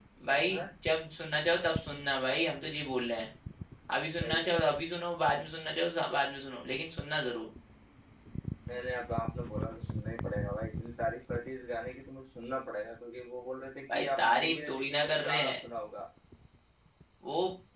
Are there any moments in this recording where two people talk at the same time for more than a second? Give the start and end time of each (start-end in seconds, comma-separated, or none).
13.9-15.5